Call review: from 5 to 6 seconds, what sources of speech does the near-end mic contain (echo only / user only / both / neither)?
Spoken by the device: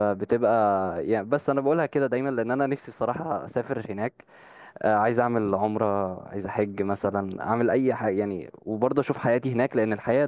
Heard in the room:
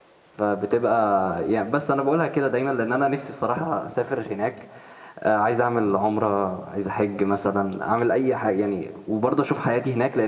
echo only